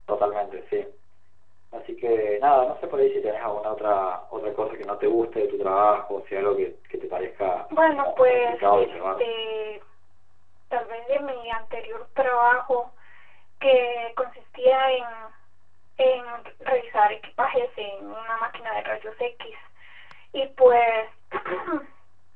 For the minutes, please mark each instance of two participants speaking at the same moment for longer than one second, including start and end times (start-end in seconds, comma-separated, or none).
8.0-9.3